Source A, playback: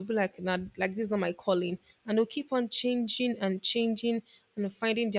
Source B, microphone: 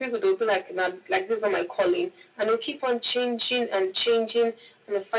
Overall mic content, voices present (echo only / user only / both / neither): echo only